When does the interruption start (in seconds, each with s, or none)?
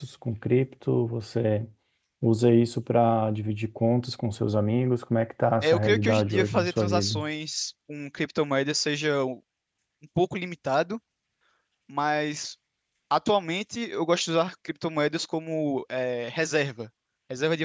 5.6 s